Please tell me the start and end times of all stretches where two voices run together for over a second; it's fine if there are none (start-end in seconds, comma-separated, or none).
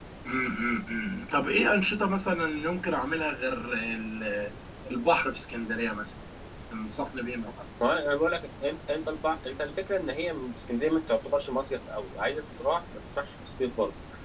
none